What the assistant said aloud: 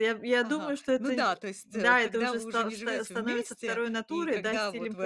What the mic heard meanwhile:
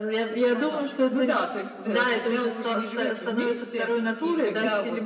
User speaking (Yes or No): No